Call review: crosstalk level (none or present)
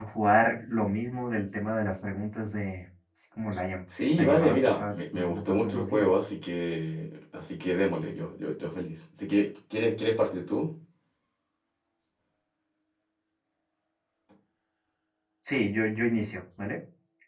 present